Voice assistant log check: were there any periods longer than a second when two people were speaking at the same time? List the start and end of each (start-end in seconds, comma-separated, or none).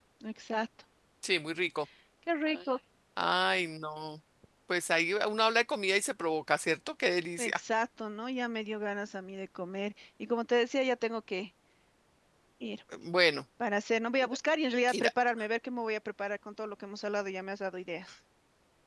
none